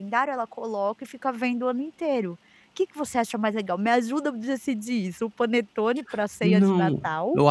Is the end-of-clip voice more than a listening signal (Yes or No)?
Yes